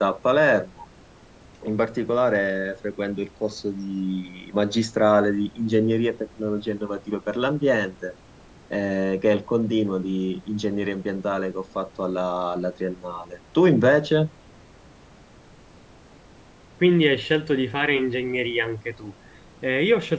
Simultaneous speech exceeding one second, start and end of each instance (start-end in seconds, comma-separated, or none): none